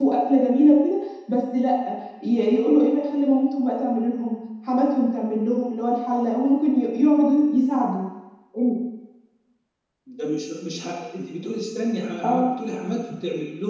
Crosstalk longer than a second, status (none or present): none